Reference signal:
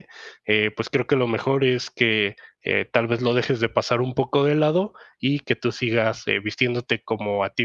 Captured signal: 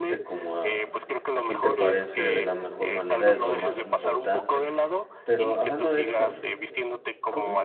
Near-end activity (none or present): present